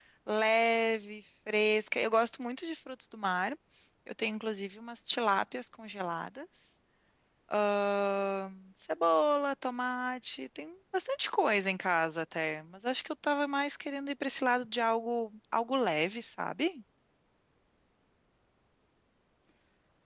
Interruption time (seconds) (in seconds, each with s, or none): none